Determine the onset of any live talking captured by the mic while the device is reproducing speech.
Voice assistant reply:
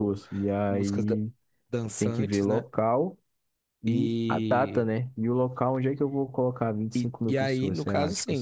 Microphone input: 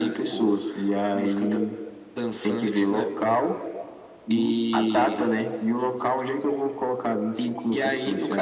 none

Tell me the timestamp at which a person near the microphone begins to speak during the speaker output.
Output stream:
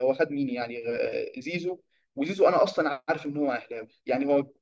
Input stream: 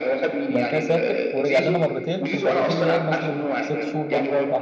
0.5 s

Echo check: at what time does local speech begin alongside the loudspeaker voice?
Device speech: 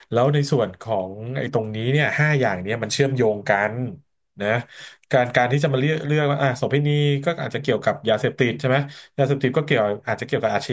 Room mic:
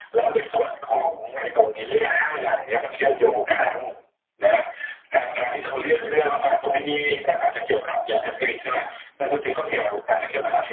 none

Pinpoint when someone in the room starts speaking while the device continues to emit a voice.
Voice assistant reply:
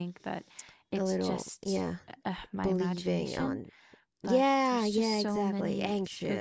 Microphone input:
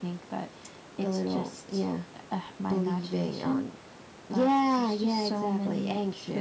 none

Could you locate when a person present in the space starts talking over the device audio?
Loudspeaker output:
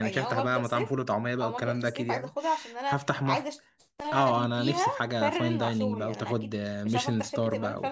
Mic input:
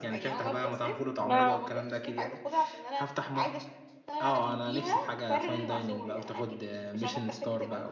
1.3 s

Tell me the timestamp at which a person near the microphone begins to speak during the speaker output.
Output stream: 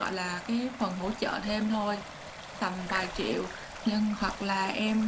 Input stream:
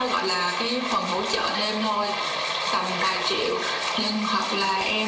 none

